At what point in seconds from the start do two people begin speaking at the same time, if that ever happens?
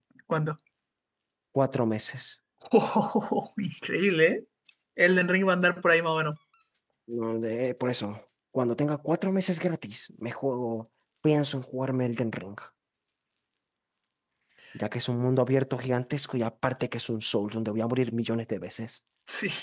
none

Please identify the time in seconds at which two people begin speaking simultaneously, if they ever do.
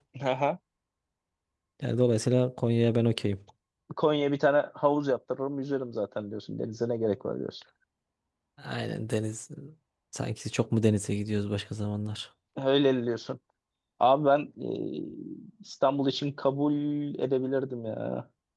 none

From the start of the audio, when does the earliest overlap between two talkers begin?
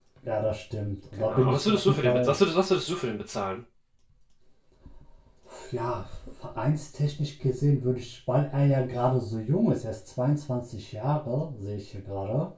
1.1 s

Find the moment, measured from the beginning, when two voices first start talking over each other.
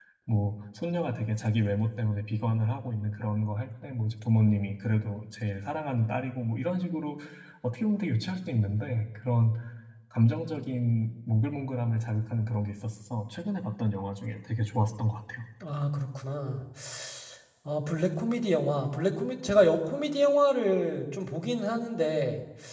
none

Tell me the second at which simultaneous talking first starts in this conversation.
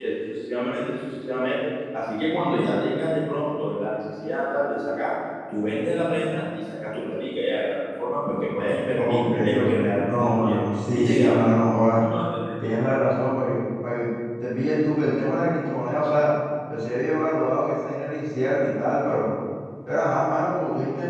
8.9 s

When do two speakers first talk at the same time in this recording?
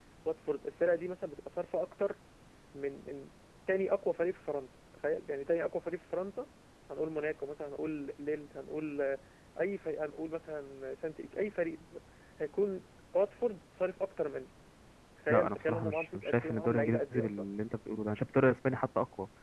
15.3 s

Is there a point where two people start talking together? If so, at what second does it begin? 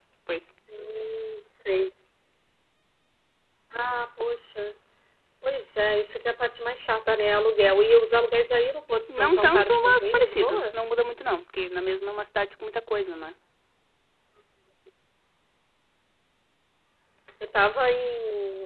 9.1 s

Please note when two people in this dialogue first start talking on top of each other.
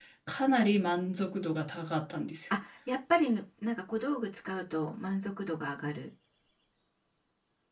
none

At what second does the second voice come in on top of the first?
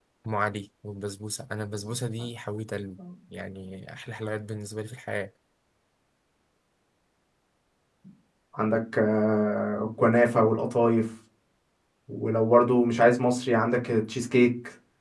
none

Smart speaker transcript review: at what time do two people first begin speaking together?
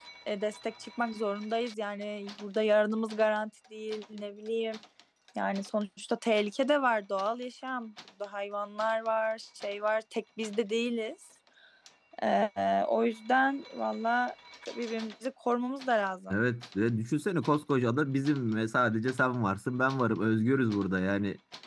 none

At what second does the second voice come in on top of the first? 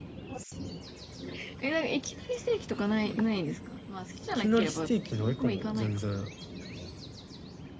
4.4 s

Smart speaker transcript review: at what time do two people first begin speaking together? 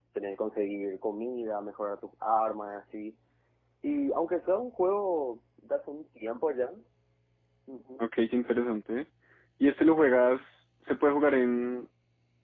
none

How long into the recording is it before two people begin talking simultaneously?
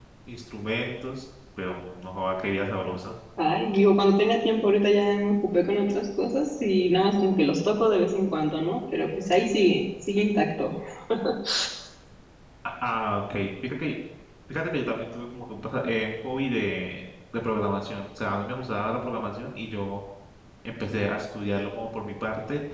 none

